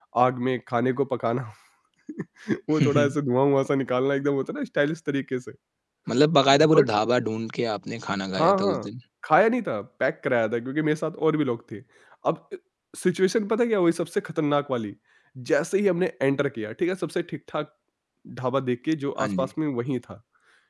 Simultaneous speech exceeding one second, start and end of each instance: none

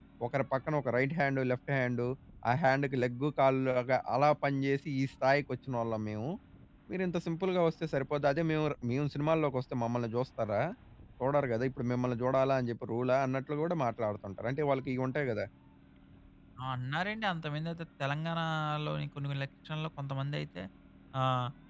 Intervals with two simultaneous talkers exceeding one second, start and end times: none

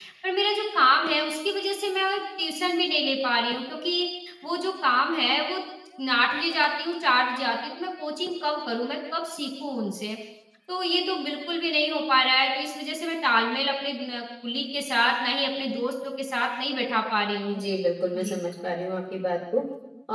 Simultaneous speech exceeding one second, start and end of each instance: none

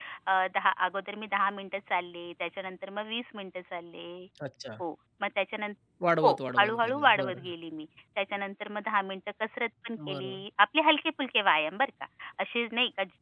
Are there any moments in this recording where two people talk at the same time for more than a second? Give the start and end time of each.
6.2-7.5

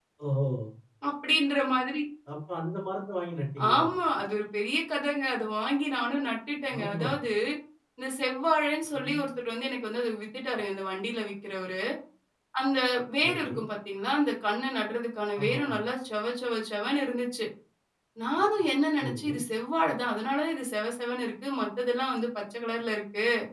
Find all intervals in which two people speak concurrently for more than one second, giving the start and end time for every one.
none

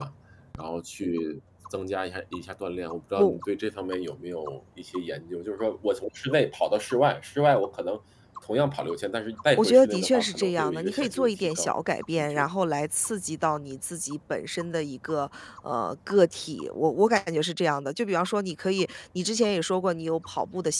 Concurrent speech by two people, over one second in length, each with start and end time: 9.6-11.7

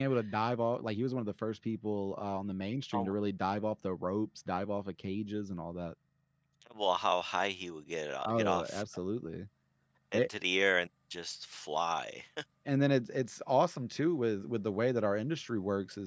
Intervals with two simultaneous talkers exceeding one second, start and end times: none

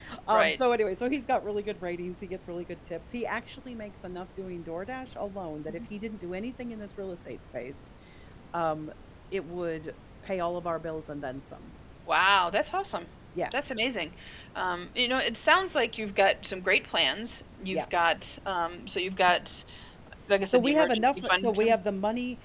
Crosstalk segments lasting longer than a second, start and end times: 20.5-21.8

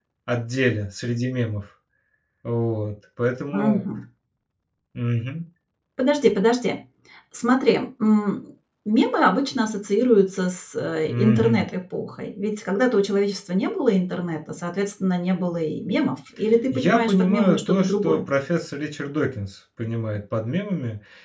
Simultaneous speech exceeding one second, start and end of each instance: 16.7-18.2

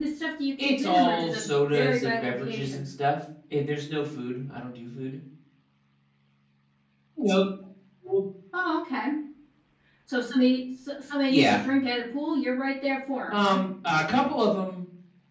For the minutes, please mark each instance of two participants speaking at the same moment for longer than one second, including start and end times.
0.6-2.8

